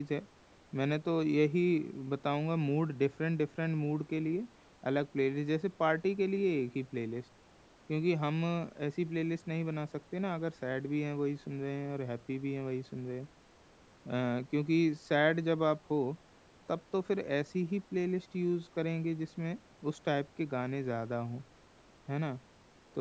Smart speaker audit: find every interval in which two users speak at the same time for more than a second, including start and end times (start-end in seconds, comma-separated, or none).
none